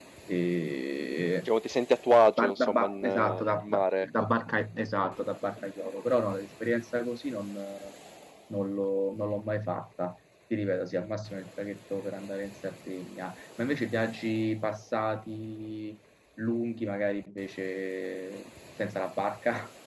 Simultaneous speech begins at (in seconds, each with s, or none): 2.4 s